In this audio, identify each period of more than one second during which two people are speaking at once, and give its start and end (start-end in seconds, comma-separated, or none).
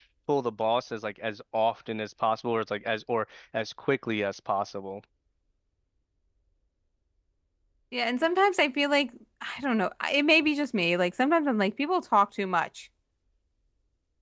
none